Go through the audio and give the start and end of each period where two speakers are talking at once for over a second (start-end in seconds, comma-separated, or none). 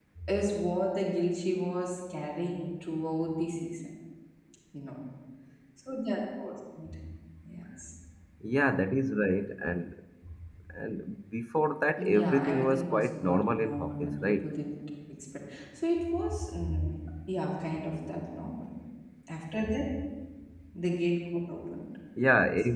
12.0-14.4